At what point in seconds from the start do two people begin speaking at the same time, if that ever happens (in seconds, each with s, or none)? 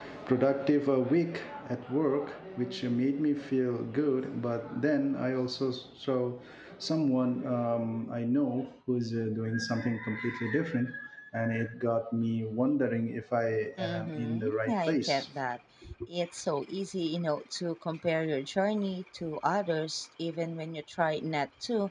13.8 s